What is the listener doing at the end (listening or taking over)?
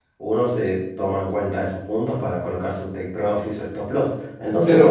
taking over